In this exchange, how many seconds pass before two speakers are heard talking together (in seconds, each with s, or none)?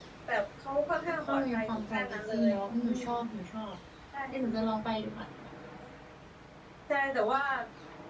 1.2 s